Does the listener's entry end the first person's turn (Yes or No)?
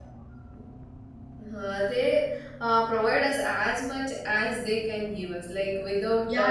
Yes